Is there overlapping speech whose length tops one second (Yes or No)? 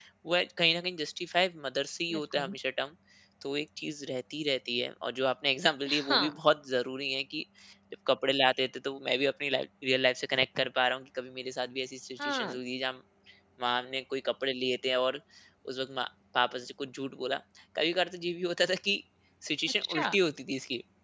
No